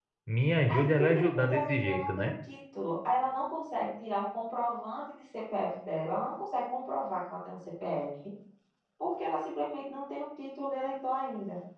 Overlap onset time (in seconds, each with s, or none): 0.7 s